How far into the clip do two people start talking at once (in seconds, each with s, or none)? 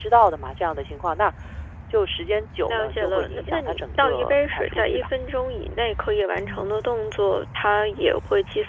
2.7 s